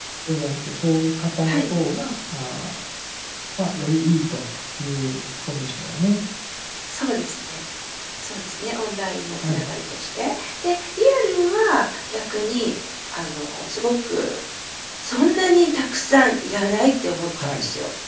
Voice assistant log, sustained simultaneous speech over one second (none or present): none